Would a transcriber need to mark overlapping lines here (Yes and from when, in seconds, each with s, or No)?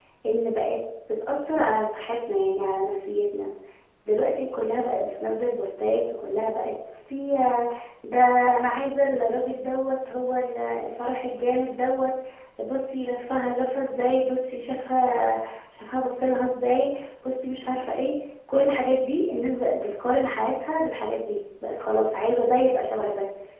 No